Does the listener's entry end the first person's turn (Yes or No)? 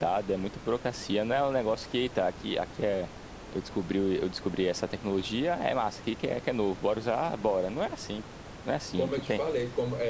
Yes